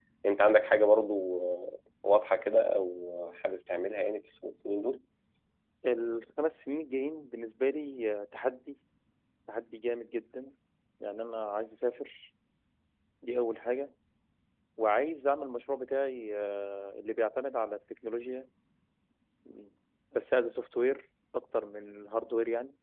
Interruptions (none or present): none